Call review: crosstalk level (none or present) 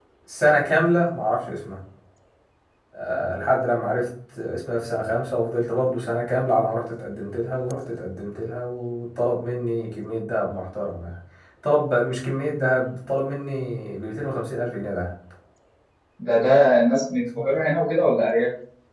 none